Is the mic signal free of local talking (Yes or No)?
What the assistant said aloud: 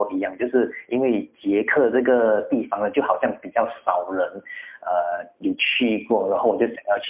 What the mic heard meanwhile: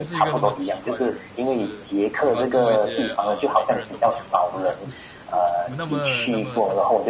No